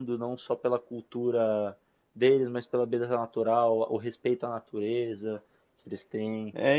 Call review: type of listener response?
taking over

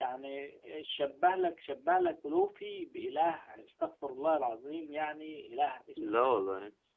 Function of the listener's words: listening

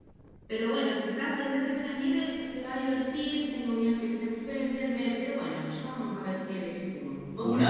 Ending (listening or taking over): listening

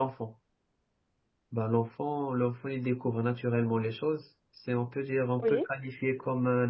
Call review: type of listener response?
listening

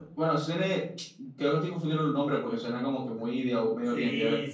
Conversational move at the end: taking over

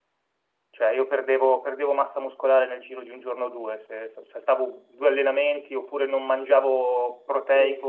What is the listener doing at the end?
taking over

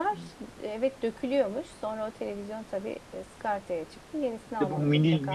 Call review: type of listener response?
taking over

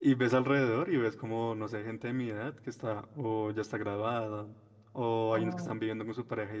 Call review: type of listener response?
listening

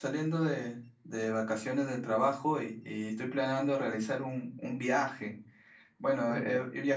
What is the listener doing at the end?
listening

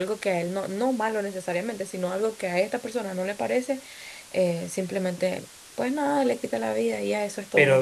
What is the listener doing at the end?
taking over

